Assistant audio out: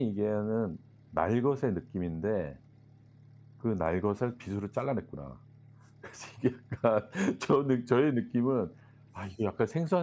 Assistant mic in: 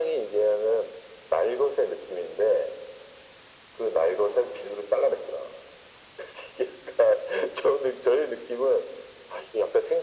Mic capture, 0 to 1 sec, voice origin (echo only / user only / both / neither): echo only